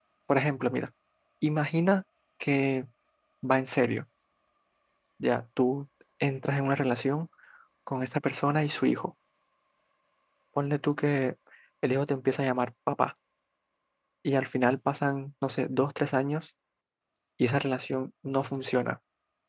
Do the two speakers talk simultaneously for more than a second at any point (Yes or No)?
No